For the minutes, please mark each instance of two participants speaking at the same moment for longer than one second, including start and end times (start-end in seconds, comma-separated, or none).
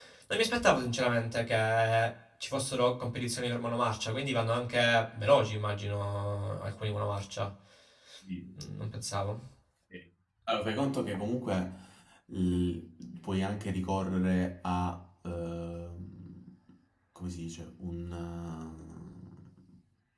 none